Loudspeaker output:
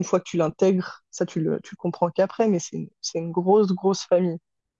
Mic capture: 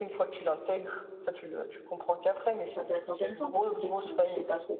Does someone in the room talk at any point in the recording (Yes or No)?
Yes